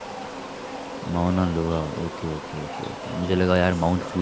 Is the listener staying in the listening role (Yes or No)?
Yes